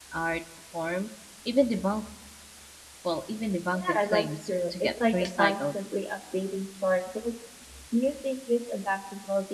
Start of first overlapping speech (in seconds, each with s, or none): 3.7 s